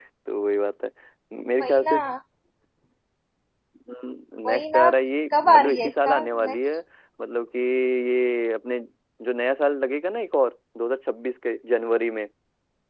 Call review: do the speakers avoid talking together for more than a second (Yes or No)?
No